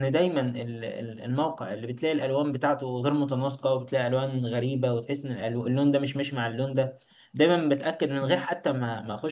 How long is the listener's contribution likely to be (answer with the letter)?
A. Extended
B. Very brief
B